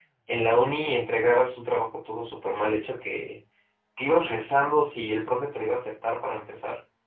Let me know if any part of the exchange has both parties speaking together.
No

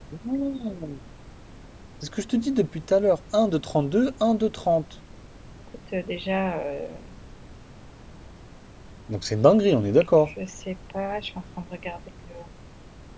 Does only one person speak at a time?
Yes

